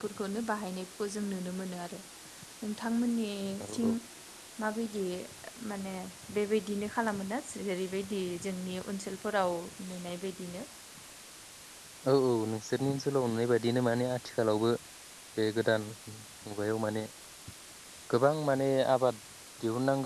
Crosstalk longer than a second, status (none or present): none